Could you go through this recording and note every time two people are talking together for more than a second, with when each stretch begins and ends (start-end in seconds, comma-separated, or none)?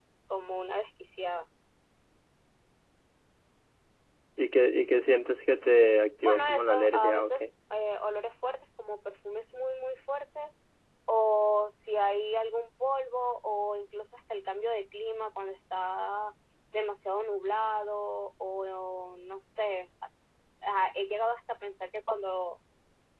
6.2-7.5